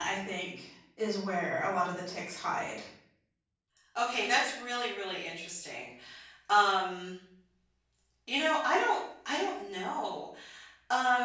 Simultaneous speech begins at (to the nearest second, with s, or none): none